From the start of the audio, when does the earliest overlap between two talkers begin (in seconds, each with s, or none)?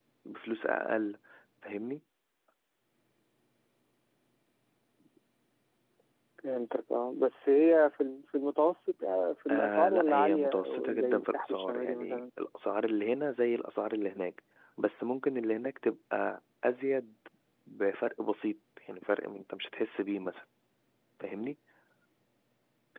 9.5 s